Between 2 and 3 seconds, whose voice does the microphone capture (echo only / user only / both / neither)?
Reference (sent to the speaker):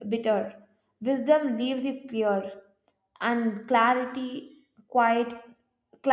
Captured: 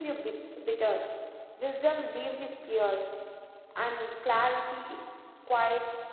echo only